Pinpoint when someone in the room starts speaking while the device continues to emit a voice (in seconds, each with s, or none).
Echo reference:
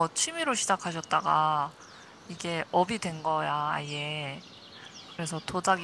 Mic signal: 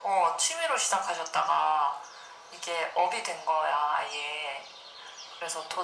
none